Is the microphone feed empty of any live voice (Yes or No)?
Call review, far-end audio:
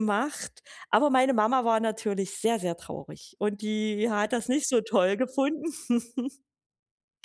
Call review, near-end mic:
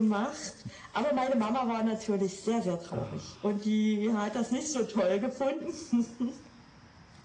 Yes